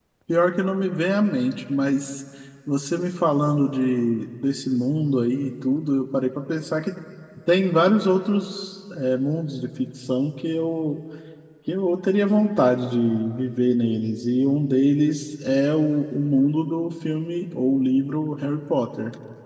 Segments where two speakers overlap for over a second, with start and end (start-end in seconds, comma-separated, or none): none